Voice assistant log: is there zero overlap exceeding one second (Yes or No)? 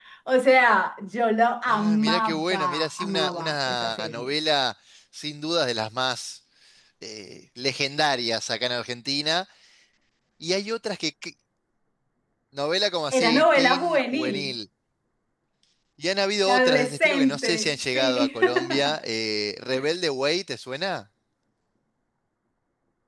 No